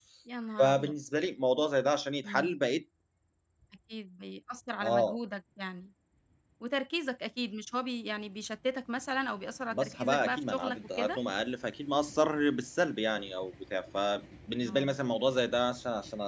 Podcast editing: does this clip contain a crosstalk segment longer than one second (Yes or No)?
Yes